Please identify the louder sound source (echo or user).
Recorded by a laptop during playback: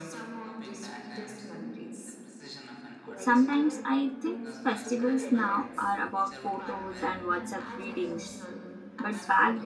user